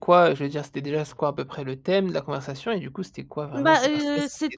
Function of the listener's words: taking over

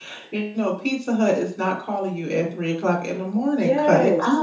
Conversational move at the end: taking over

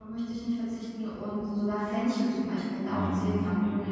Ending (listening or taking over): listening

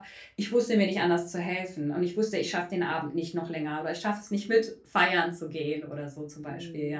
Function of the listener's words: taking over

